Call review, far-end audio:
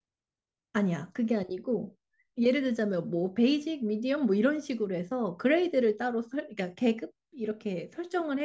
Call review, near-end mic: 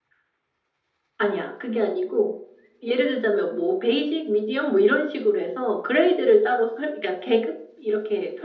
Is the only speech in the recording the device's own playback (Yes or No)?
Yes